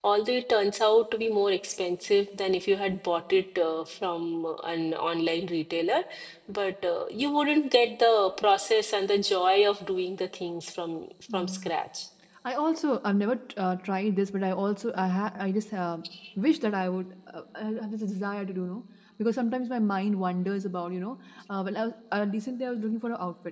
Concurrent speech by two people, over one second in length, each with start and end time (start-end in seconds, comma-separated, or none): none